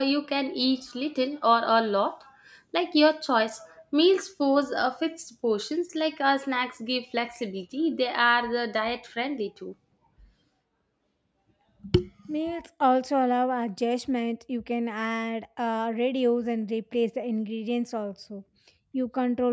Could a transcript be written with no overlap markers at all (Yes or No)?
Yes